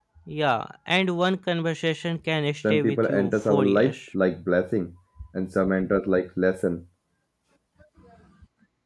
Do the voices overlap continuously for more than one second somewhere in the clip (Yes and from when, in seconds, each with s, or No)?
Yes, from 2.6 s